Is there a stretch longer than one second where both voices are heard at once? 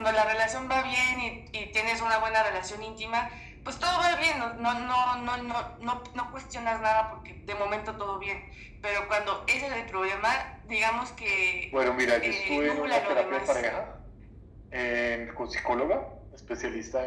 Yes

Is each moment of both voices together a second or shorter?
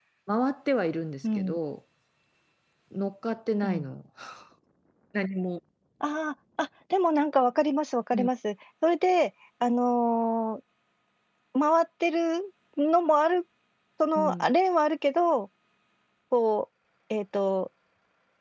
Yes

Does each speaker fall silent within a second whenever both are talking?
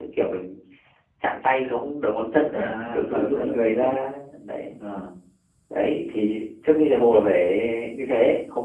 No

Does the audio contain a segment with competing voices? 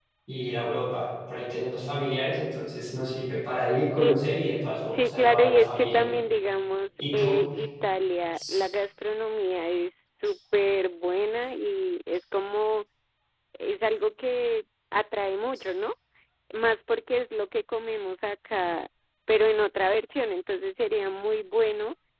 Yes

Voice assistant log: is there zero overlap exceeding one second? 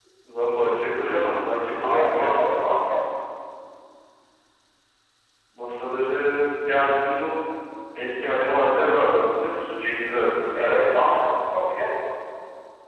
Yes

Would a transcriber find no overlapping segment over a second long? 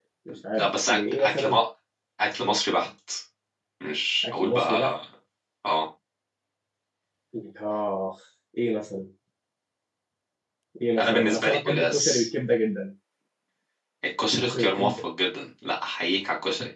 No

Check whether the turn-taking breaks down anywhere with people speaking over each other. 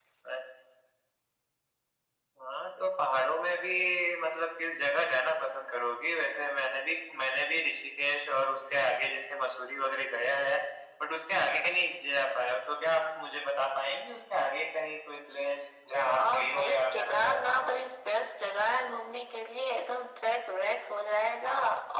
Yes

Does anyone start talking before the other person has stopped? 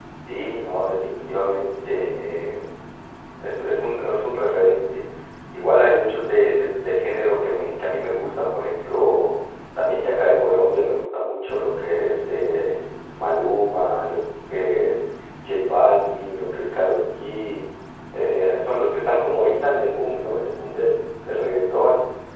No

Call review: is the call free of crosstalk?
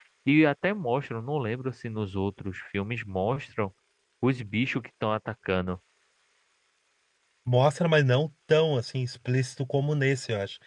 Yes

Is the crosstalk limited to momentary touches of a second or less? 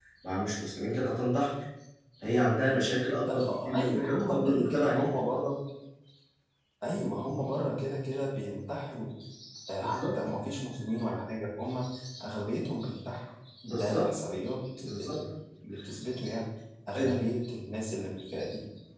No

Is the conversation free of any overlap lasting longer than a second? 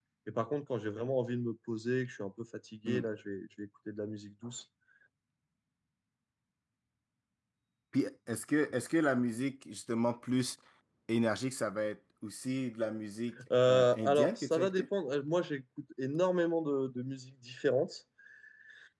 No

